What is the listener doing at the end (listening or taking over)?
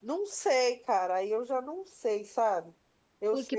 taking over